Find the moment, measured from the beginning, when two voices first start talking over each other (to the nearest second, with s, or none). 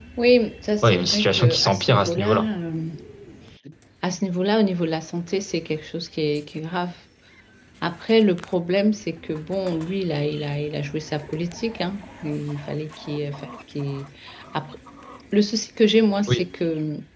1 s